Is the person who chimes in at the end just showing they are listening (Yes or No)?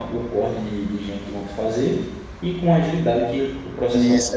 No